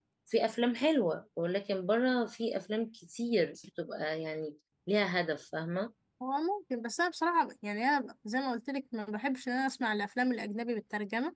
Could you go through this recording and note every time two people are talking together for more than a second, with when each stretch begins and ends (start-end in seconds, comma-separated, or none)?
none